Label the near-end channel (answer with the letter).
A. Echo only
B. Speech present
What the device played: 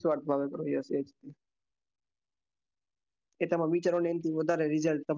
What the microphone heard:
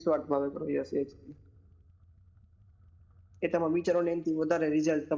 A